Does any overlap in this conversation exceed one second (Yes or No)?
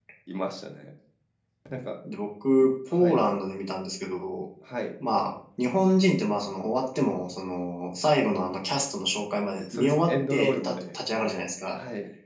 Yes